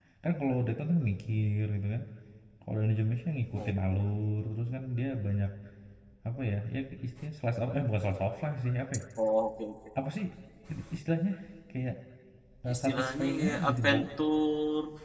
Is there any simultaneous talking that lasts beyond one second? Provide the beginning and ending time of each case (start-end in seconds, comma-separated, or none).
12.7-14.0